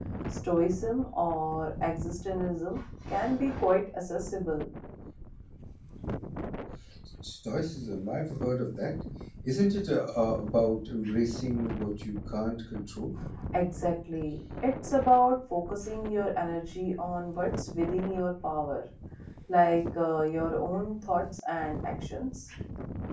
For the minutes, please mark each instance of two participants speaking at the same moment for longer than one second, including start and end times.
none

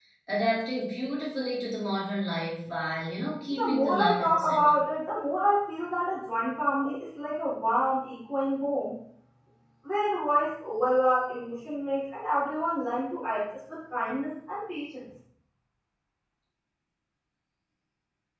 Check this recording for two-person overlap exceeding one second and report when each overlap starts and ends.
3.5-4.8

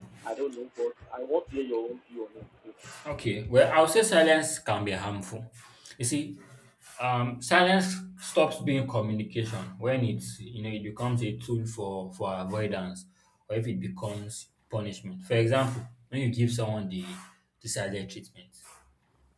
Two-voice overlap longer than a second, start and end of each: none

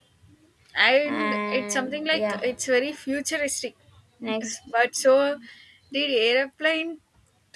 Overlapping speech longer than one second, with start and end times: 1.1-2.4

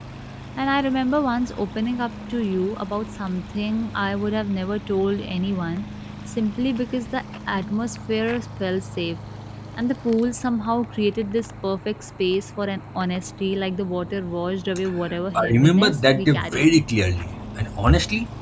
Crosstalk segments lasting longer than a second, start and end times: 15.3-16.7

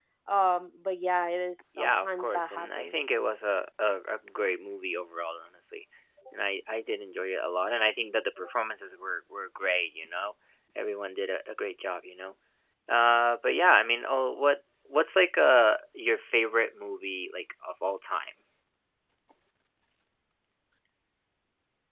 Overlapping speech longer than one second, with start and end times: 1.7-3.1

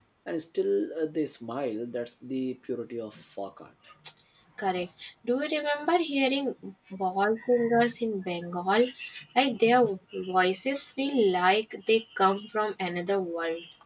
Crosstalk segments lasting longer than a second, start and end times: none

